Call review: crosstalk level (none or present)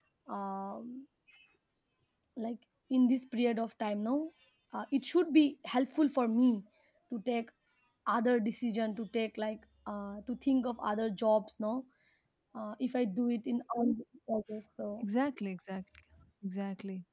none